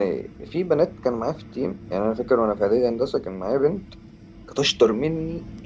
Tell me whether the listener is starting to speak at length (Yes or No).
No